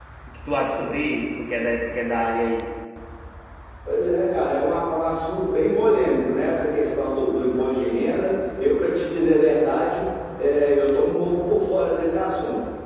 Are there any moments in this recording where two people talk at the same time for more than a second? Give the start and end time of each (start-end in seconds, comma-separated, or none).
none